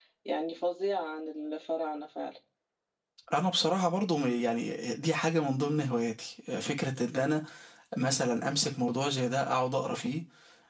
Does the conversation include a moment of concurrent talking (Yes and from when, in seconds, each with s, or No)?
No